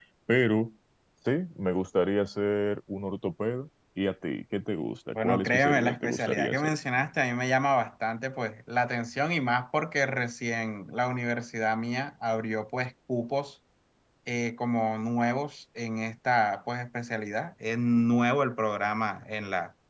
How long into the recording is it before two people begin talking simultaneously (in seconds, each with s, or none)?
5.2 s